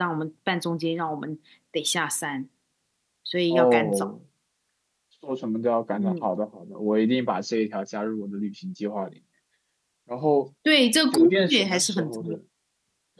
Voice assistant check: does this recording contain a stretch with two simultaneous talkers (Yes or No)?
Yes